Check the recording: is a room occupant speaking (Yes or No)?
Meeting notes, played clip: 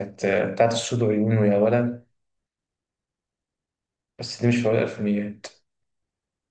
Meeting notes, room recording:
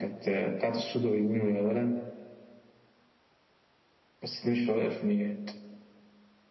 No